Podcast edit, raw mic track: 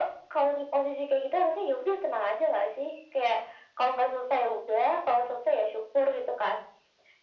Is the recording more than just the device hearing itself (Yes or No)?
No